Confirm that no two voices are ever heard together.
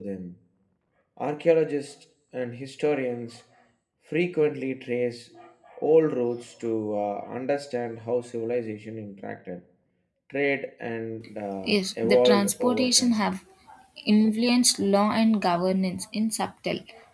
No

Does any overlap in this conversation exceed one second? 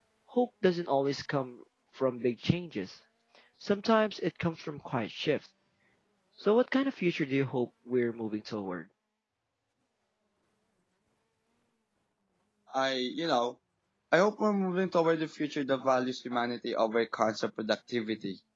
No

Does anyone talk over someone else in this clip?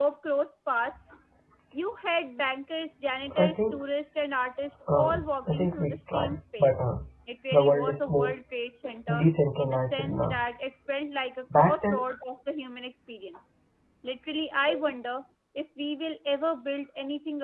Yes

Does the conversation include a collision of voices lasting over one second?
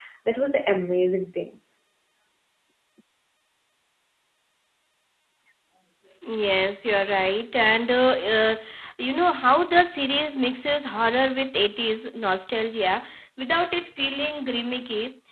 No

